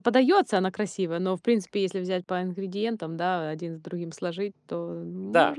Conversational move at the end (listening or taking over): taking over